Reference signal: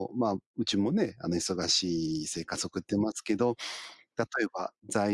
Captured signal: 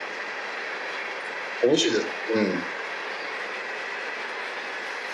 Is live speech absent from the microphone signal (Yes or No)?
No